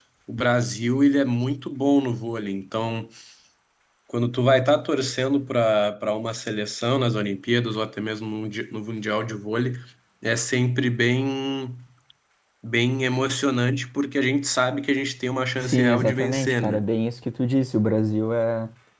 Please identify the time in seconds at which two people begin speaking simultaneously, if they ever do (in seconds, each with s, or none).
15.6 s